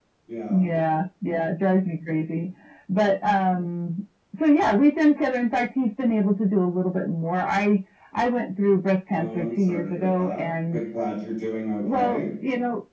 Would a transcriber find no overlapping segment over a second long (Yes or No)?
No